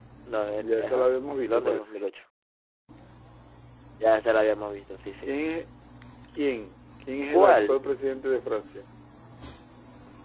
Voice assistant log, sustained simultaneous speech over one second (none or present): present